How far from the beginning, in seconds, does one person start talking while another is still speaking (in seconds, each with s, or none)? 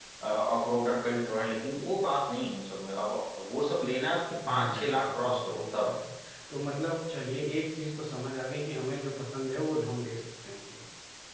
4.5 s